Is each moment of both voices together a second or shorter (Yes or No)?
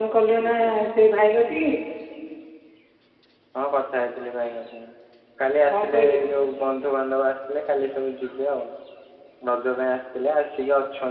Yes